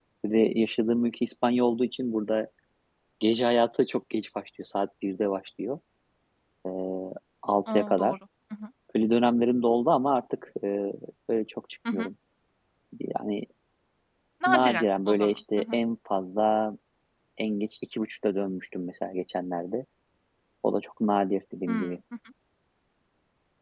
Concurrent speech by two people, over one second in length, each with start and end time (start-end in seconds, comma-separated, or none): 14.5-15.8